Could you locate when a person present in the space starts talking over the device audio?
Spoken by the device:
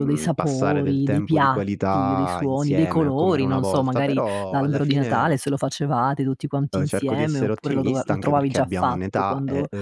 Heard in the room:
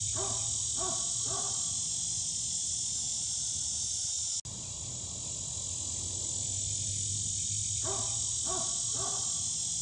none

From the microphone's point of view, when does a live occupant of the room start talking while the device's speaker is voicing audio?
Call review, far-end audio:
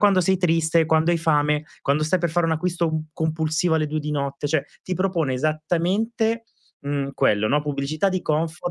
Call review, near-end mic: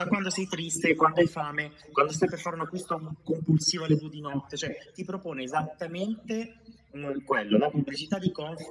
none

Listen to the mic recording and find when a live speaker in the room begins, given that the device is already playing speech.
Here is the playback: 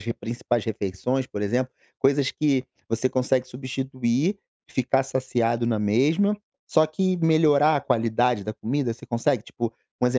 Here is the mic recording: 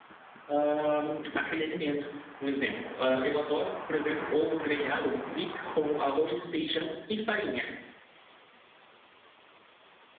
0.5 s

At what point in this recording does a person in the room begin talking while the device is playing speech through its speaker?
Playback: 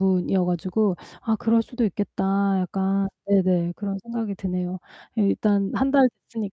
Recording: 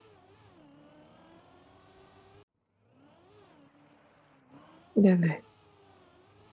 5.0 s

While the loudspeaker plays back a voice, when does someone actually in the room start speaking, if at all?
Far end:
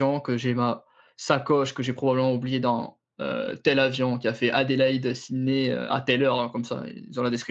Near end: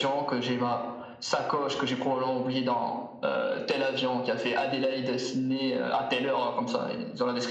none

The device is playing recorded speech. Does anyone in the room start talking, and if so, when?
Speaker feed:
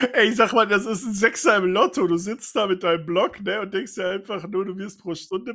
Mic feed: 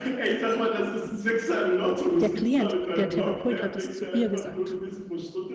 2.2 s

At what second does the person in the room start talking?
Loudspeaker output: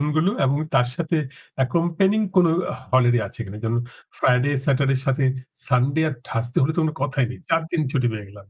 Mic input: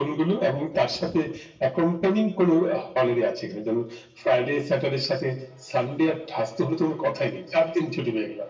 none

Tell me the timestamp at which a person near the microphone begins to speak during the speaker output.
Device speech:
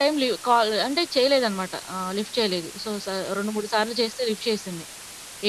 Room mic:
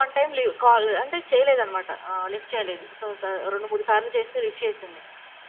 none

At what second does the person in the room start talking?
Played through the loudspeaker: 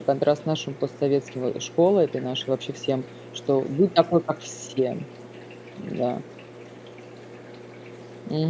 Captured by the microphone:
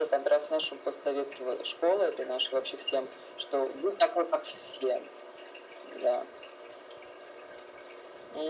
none

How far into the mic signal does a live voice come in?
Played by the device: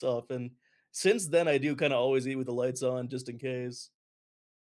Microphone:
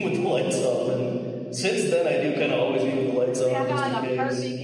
3.1 s

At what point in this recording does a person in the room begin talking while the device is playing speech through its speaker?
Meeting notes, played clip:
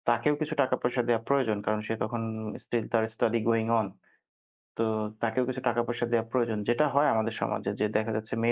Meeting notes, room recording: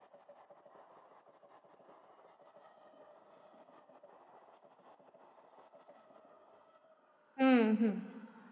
7.4 s

